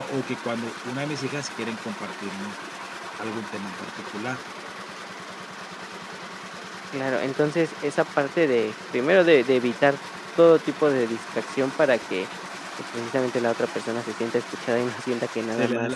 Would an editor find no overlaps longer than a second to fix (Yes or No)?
Yes